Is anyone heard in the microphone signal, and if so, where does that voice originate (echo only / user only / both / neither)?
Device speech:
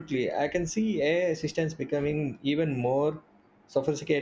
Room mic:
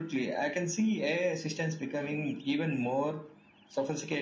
echo only